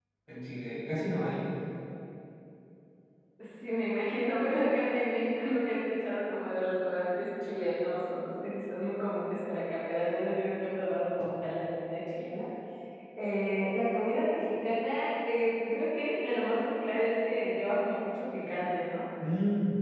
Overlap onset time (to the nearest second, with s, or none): none